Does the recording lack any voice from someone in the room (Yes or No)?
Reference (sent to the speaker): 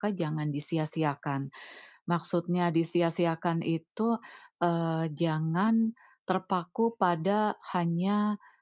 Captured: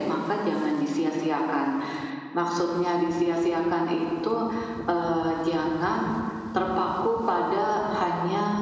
Yes